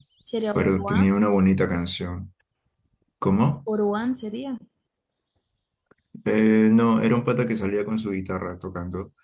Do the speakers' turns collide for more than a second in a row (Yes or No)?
No